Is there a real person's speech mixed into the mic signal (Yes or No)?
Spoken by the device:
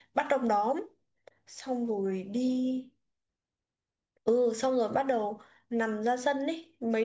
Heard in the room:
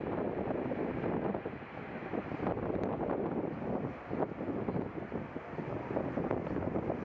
No